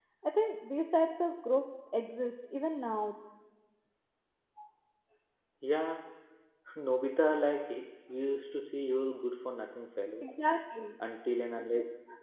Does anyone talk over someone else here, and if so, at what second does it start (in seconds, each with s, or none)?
none